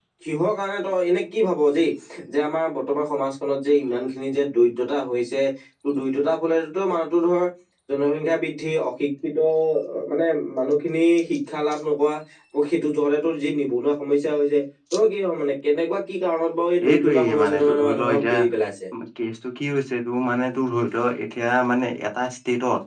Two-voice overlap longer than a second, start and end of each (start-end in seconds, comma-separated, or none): 16.9-18.3